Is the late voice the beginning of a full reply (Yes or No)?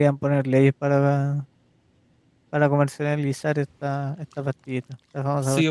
Yes